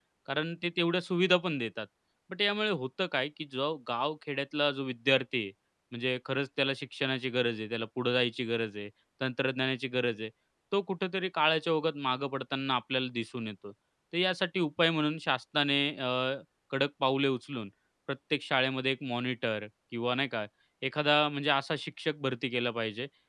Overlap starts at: none

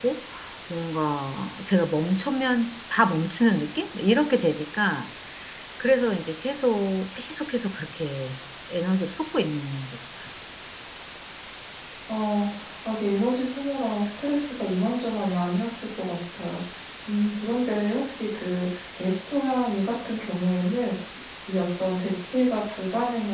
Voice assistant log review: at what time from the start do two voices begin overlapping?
none

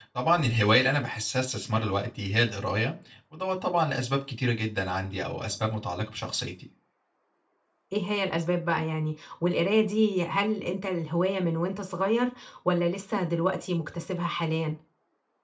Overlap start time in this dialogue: none

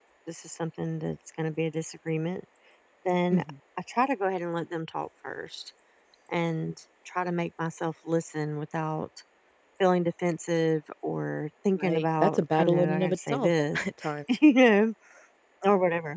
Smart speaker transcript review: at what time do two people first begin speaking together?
12 s

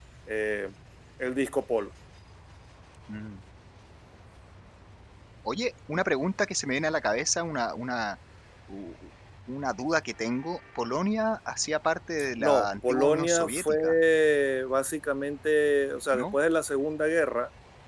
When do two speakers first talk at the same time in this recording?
12 s

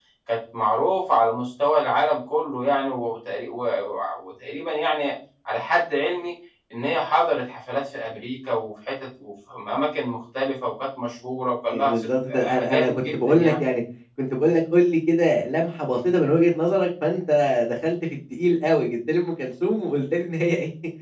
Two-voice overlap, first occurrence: 12 s

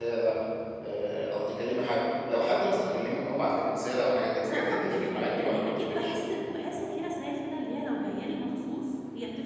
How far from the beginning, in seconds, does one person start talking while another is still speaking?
4 s

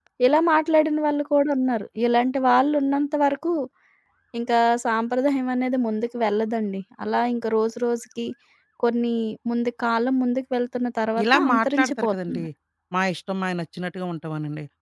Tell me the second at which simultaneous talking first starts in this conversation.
11 s

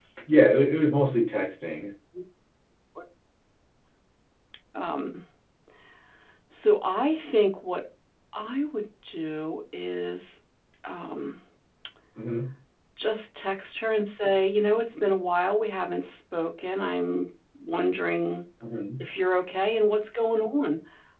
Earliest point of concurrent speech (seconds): none

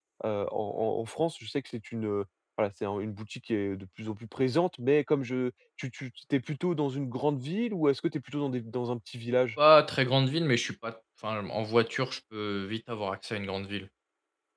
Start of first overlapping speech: none

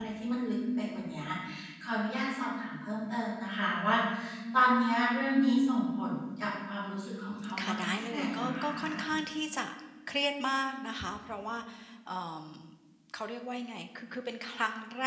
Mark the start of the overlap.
7 s

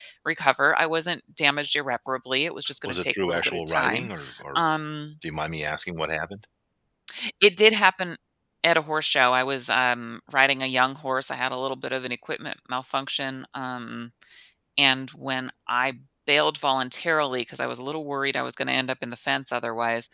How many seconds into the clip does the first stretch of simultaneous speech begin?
3 s

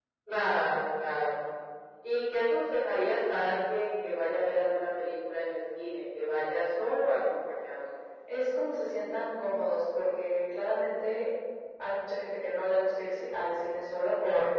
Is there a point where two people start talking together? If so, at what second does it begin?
none

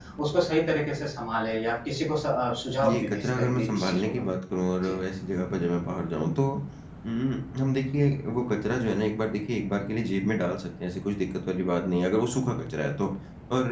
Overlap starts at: 3 s

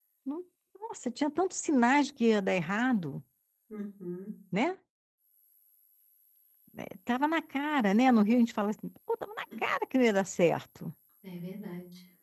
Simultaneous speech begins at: none

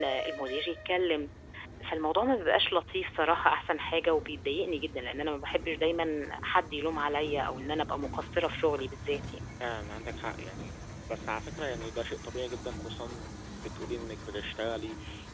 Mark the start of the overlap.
none

